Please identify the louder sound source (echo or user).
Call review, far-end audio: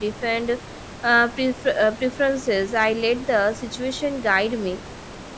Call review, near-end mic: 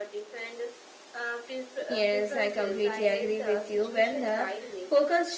user